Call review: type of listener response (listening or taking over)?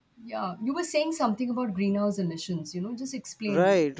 taking over